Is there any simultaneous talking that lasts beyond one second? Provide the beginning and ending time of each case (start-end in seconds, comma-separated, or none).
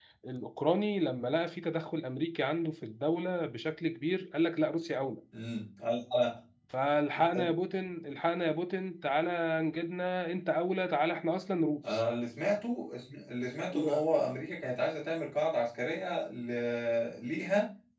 none